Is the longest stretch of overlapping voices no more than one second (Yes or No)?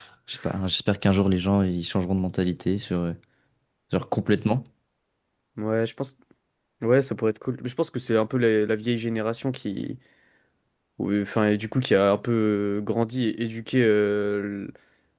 Yes